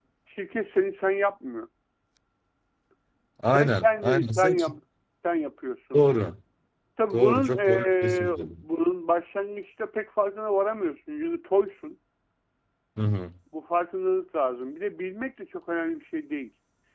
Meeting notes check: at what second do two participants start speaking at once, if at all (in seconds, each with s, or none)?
3.5 s